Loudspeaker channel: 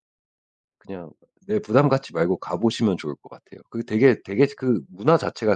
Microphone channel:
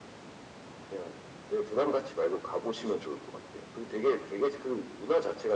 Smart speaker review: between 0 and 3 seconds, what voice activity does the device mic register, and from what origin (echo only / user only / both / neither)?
echo only